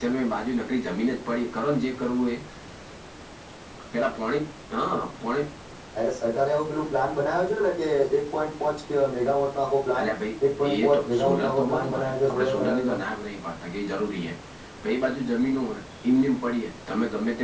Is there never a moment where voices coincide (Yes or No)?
No